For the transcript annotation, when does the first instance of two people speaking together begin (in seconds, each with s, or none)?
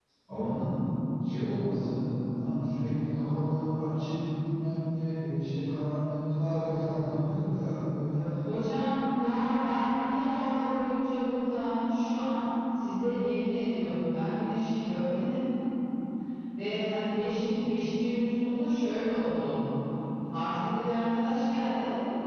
none